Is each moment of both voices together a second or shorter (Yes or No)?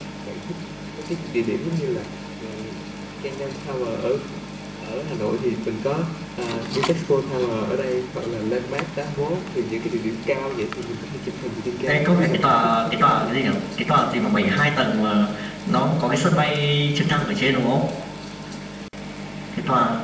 No